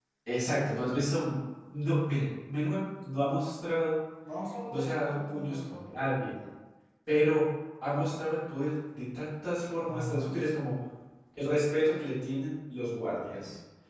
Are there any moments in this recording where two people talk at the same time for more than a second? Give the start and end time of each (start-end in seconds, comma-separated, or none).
4.7-6.3